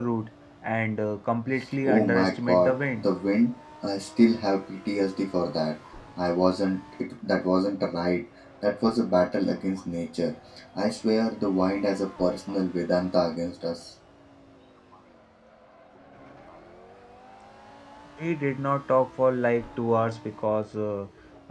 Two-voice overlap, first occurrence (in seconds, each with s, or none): 1.6 s